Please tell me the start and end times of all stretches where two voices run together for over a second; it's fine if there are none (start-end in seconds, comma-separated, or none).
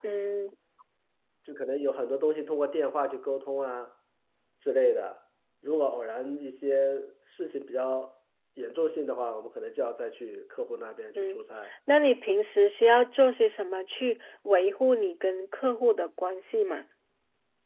none